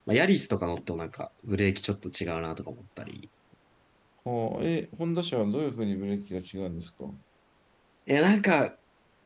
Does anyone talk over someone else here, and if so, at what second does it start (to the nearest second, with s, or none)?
none